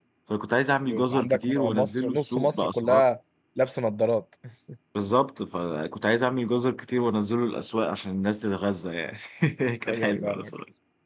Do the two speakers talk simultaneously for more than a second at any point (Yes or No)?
Yes